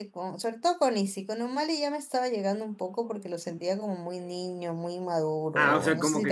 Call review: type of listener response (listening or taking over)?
taking over